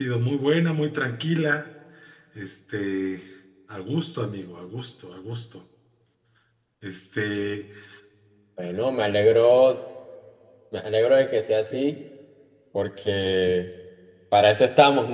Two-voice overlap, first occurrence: none

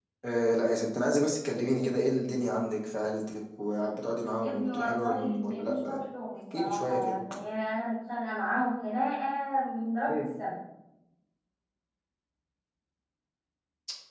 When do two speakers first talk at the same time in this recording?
4.4 s

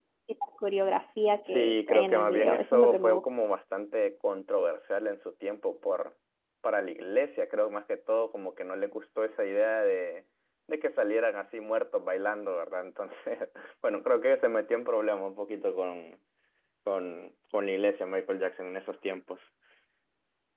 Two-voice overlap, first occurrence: 1.4 s

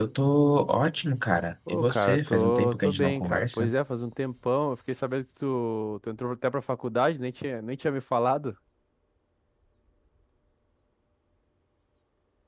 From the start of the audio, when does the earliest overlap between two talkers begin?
1.7 s

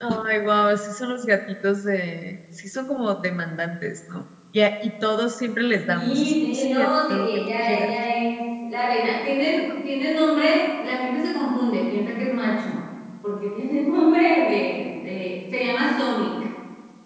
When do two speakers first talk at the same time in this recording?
5.8 s

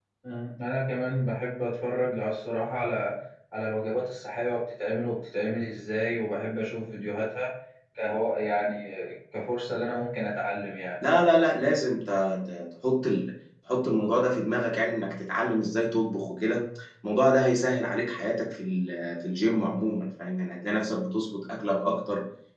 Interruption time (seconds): none

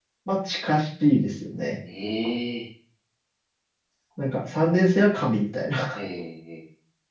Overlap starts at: none

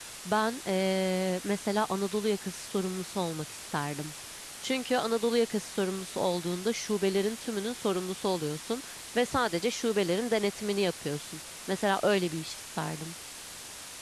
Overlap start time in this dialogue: none

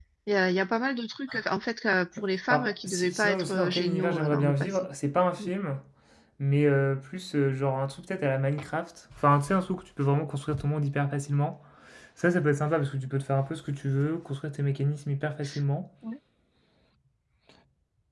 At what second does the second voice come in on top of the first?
2.5 s

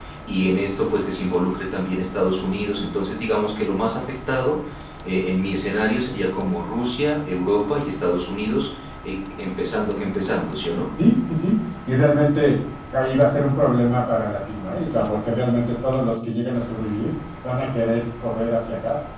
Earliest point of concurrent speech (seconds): none

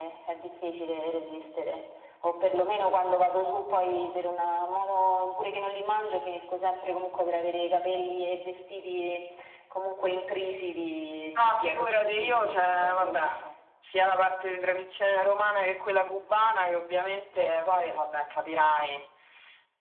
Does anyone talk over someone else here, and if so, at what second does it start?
11.4 s

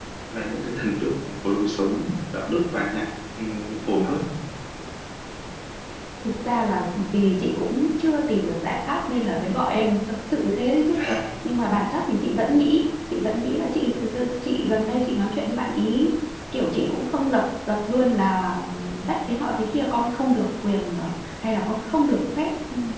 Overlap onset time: none

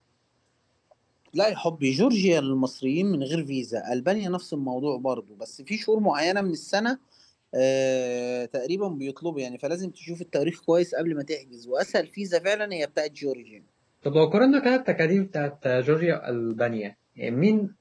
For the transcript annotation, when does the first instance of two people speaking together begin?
none

